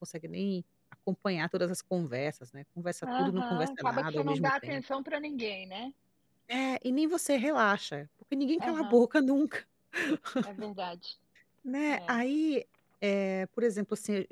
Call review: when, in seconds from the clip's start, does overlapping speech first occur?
3.0 s

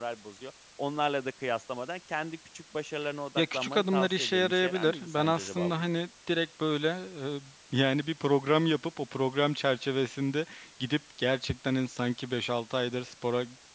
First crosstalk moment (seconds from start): 3.4 s

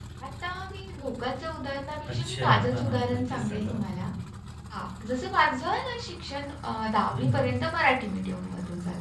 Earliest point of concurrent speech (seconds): 2.1 s

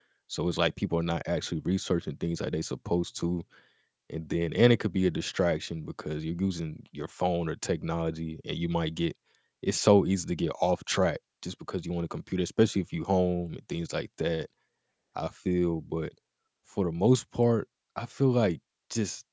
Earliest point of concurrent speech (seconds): none

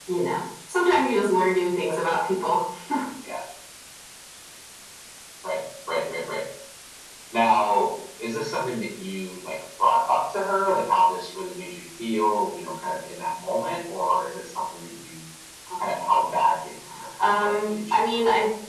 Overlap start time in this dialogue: 17.2 s

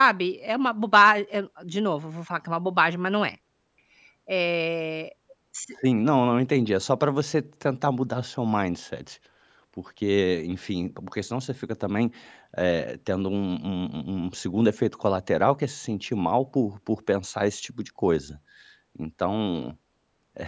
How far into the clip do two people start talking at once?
none

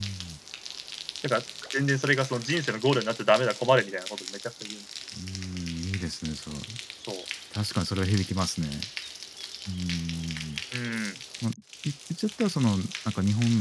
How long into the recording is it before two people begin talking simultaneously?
none

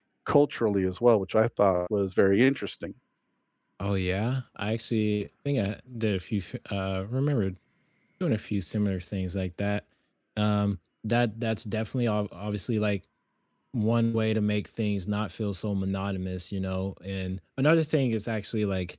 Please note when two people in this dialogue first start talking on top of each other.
none

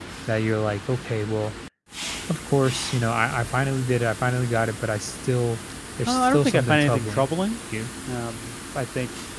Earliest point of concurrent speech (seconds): 6.1 s

